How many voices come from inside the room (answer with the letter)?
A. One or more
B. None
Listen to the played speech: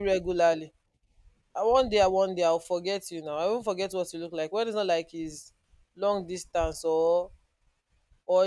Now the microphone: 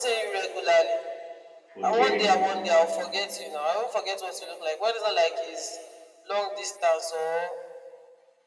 A